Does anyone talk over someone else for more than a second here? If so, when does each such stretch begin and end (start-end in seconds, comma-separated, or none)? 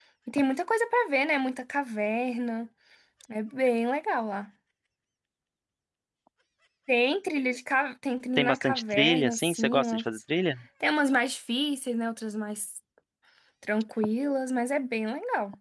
8.4-10.0